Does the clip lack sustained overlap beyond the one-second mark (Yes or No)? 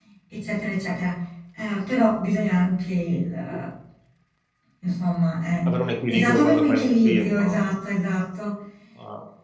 No